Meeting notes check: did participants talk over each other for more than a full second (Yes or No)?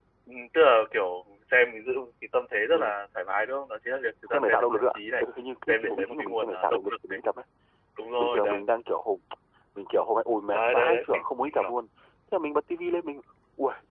Yes